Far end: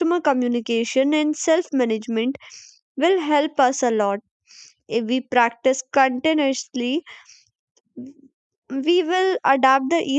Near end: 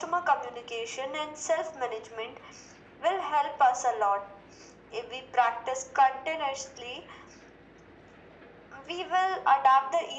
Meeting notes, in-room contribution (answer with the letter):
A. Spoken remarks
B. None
B